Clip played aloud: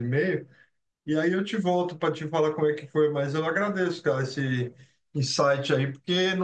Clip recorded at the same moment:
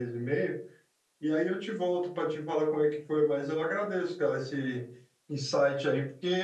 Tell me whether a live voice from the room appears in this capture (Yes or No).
No